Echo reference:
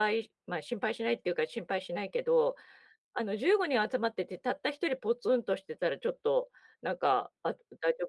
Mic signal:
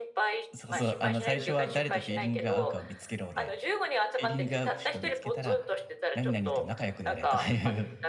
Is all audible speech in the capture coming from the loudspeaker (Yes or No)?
No